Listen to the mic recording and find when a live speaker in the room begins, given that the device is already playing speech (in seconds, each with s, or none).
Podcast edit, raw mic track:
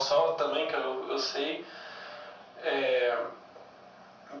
none